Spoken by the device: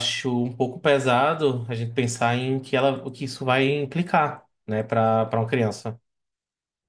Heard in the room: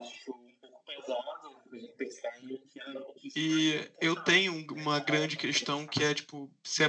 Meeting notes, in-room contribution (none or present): present